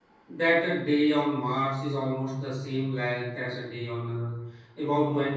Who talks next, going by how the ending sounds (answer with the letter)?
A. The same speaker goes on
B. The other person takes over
A